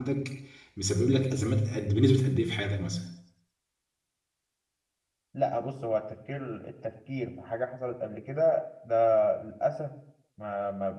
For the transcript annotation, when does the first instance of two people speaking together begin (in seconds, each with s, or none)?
none